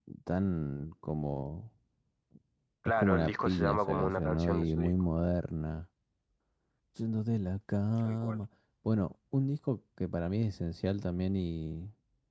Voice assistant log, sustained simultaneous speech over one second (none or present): present